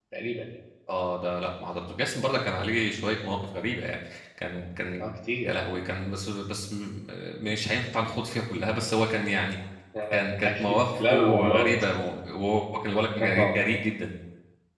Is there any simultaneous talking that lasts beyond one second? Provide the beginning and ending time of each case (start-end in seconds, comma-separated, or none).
10.1-11.8